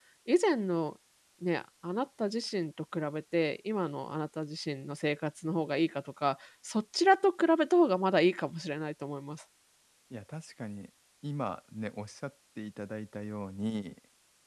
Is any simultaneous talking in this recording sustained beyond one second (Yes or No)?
No